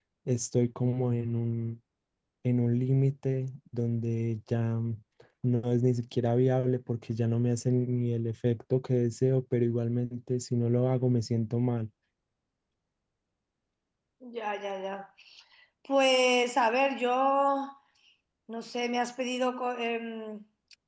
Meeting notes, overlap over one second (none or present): none